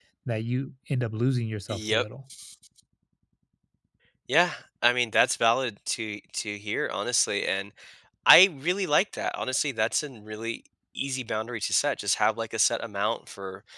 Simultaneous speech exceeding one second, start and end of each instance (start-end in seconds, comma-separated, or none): none